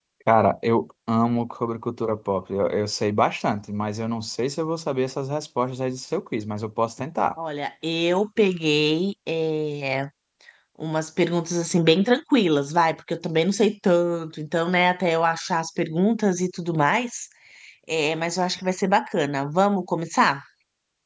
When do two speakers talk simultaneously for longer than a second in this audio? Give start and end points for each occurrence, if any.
none

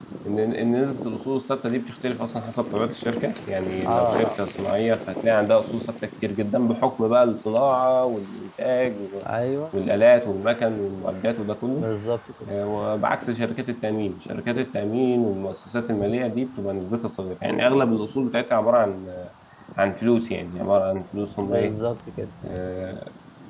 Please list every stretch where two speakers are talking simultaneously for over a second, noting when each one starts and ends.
none

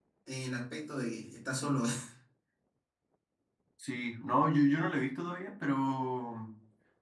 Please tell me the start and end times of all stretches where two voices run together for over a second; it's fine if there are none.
none

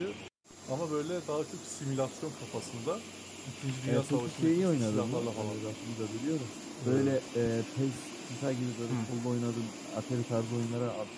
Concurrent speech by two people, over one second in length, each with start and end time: 3.9-5.6

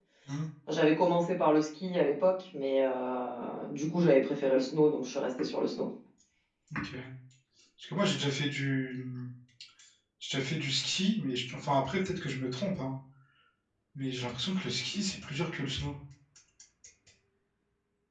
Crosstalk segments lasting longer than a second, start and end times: none

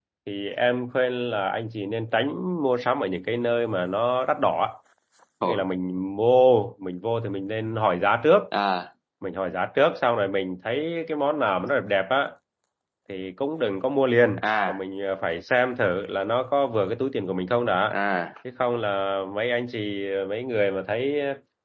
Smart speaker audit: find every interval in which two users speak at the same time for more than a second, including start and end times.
none

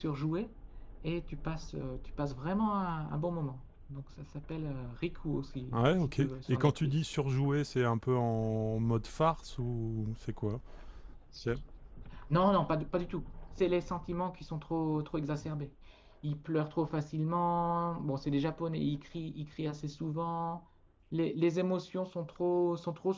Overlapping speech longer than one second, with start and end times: 5.7-6.9

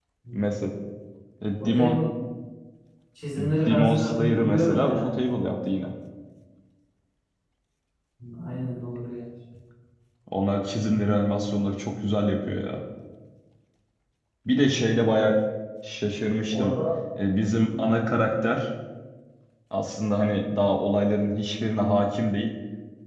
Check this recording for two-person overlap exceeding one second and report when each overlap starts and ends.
3.7-5.1

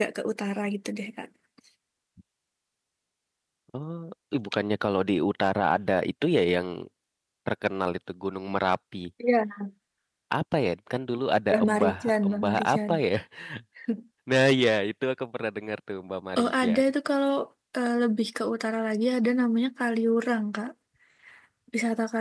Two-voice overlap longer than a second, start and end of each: 11.5-12.9

